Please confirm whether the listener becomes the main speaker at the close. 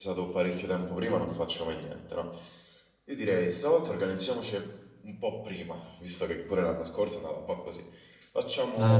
Yes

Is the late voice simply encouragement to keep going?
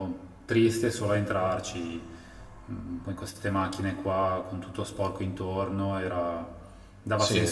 No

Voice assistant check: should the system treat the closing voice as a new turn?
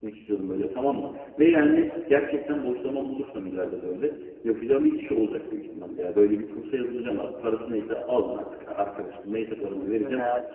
Yes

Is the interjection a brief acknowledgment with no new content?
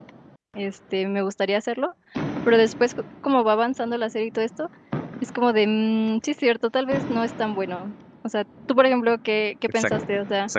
No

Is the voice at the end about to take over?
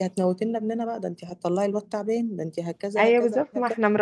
Yes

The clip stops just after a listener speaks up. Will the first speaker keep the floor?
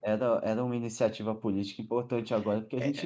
No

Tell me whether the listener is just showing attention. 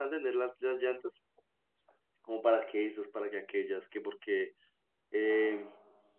Yes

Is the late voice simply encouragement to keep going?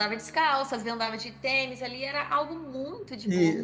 No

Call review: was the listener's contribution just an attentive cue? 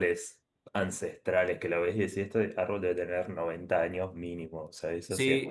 No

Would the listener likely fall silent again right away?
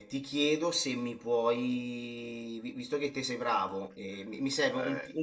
Yes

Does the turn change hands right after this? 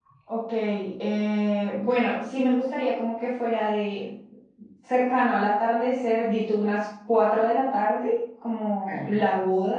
No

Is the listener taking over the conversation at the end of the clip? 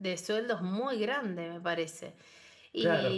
Yes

